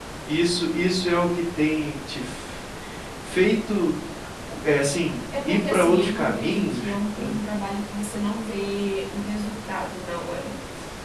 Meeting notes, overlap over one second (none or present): present